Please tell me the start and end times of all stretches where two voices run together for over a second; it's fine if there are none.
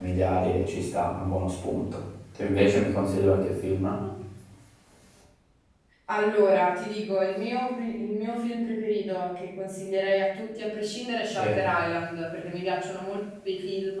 none

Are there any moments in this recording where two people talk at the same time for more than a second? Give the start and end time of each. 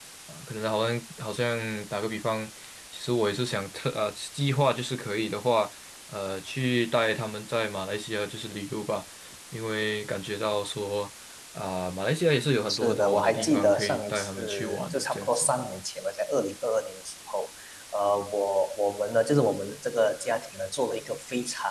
12.7-15.5

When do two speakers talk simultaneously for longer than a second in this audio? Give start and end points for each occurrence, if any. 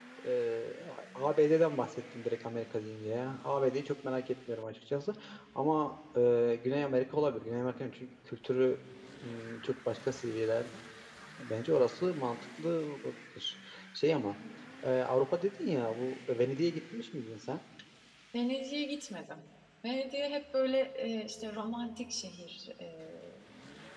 none

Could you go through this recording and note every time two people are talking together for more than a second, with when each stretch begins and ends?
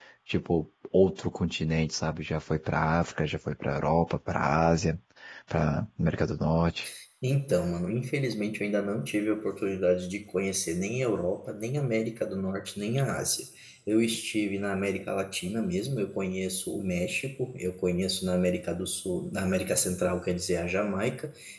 none

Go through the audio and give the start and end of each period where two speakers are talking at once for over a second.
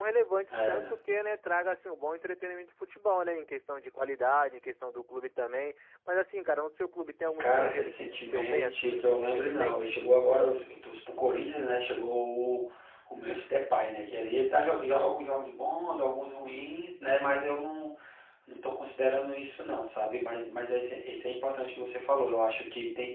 7.4-9.9

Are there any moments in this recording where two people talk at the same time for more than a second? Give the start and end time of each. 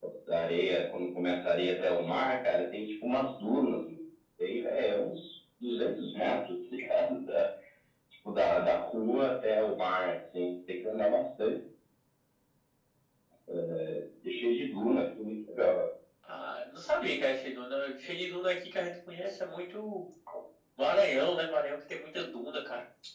none

